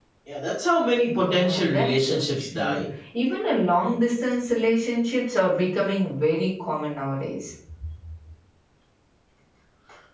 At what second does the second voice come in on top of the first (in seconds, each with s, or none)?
1.3 s